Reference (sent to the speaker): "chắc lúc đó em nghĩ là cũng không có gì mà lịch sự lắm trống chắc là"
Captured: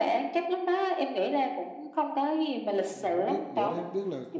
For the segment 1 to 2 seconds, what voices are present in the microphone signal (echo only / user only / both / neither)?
echo only